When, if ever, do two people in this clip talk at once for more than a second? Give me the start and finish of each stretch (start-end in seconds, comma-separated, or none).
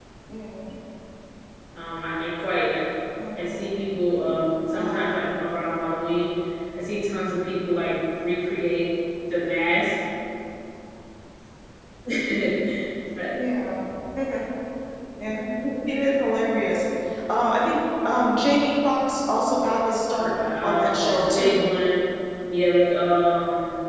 20.2-21.7